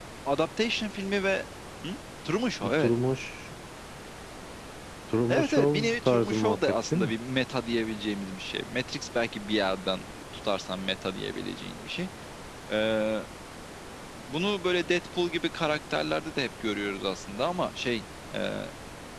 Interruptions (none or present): present